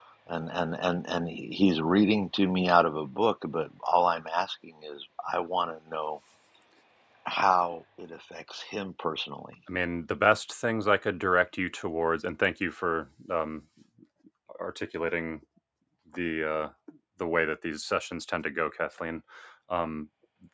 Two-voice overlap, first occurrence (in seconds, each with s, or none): none